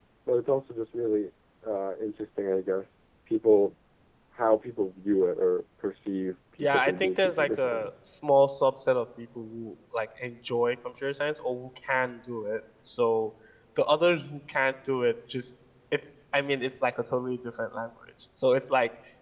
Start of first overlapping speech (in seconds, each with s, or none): 6.6 s